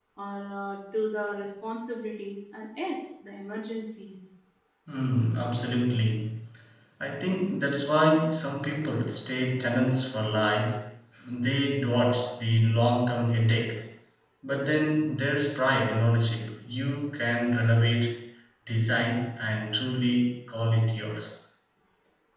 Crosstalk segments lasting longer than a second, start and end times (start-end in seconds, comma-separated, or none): none